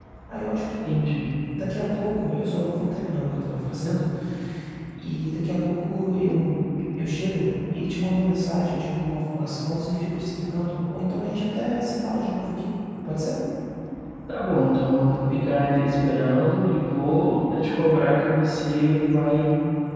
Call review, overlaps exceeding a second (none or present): none